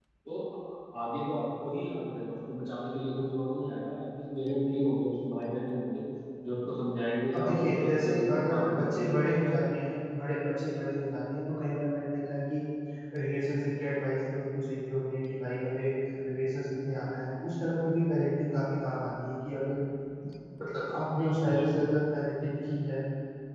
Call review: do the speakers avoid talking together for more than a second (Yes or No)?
No